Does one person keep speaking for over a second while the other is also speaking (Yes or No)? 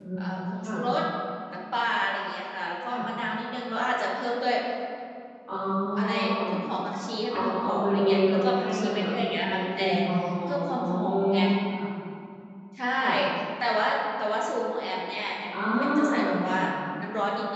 Yes